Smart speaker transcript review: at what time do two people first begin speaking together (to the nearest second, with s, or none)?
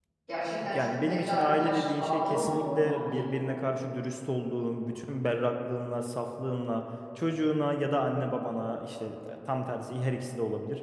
1 s